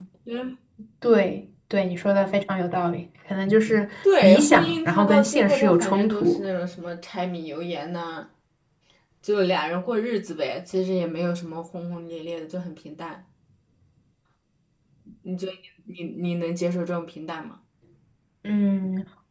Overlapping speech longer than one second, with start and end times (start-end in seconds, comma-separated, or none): 4.2-6.4